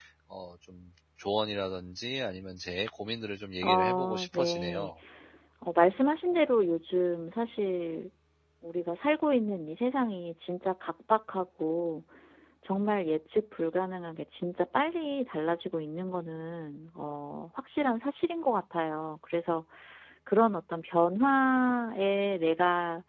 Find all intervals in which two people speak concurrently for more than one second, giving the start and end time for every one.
3.6-4.9

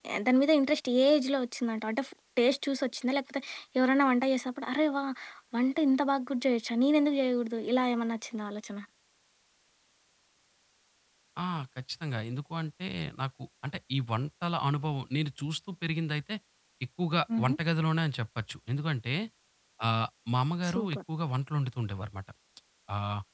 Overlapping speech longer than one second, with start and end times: none

